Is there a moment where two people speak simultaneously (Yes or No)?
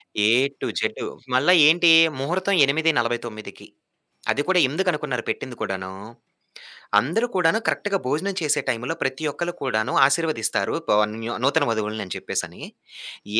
No